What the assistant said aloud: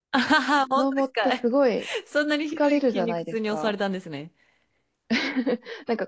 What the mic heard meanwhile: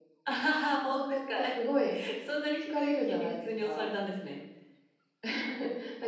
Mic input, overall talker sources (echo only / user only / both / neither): echo only